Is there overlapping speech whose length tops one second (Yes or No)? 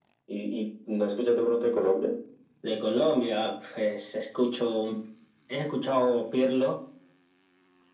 No